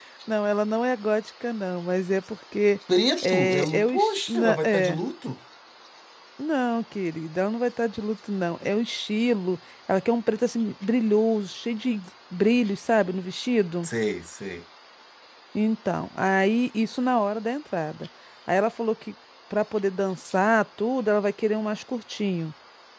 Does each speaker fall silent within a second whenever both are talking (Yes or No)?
No